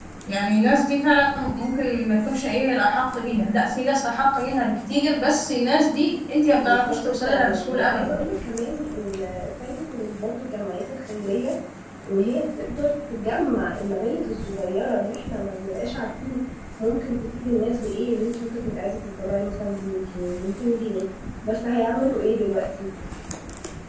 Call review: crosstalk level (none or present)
present